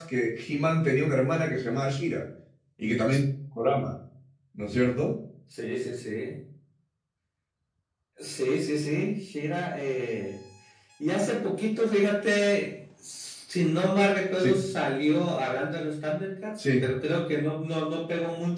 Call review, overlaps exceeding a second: none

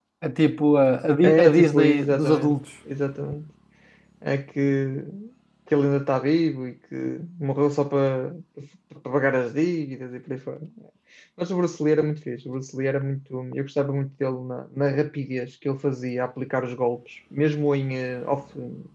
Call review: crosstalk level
present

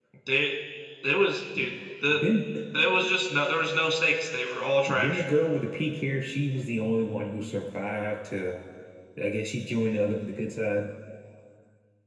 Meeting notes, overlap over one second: none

